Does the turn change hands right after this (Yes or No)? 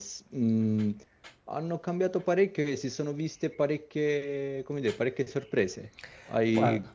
No